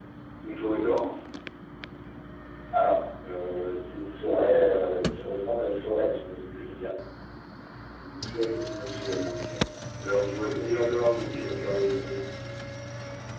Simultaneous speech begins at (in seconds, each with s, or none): none